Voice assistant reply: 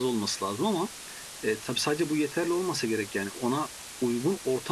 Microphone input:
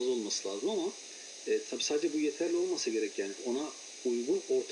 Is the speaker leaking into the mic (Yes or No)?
Yes